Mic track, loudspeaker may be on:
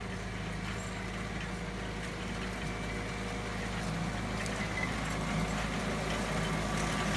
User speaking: No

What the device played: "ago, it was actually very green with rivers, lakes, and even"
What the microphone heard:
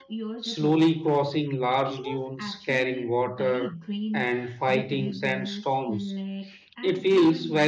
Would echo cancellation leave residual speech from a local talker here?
Yes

